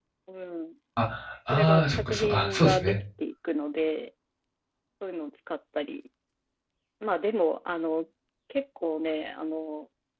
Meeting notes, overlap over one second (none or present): present